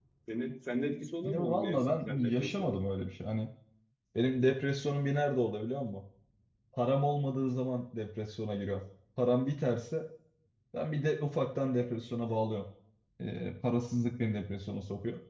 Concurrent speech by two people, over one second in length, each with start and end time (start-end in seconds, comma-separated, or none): 1.2-2.8